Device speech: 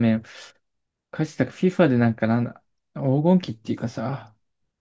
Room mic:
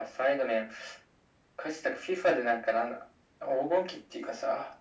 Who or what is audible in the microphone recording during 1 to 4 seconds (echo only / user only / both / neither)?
echo only